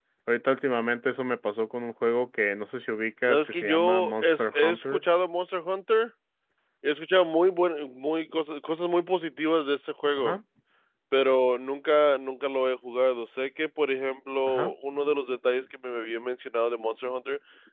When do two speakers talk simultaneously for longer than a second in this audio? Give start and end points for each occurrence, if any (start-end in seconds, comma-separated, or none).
3.3-5.0